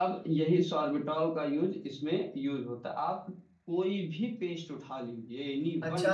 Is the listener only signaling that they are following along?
No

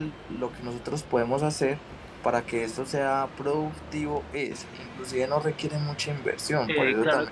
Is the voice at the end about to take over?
Yes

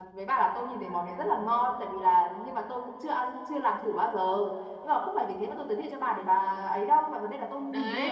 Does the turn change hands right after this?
No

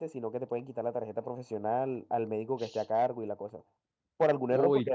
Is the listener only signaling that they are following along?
Yes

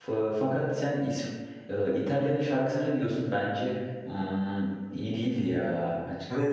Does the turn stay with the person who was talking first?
No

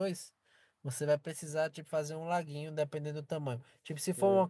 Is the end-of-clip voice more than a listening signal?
No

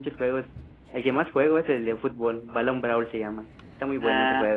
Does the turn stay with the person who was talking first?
No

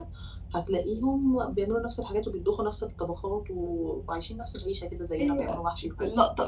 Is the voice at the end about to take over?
Yes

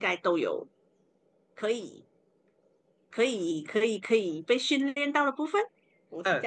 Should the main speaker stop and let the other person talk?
Yes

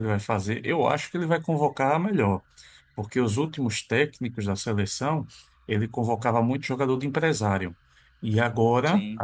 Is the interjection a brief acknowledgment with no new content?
Yes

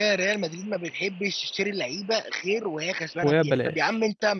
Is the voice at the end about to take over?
No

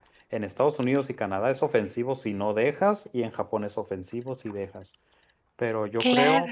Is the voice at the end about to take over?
No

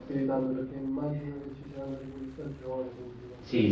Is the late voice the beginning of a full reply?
Yes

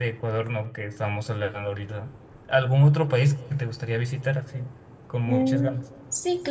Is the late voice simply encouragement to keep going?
No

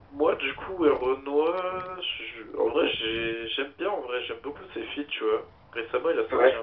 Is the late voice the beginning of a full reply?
No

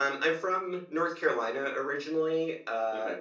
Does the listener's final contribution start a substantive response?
No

